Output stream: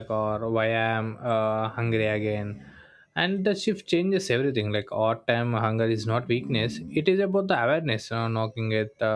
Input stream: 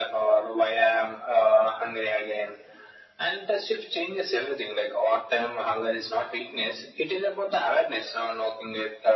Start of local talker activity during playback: none

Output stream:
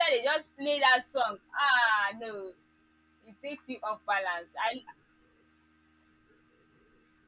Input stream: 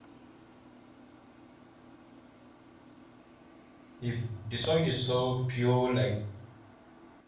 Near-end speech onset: 4.0 s

